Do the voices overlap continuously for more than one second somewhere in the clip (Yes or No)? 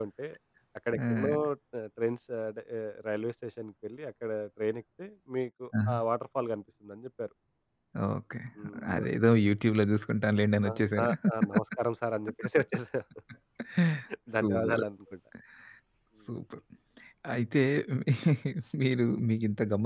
No